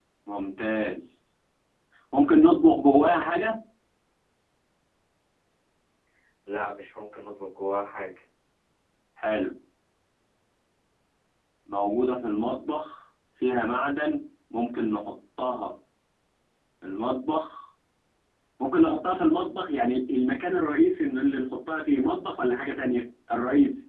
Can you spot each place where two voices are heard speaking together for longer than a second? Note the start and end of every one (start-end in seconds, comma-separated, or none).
none